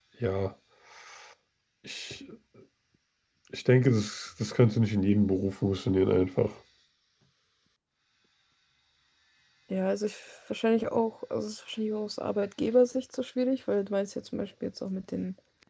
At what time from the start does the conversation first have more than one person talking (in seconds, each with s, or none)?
none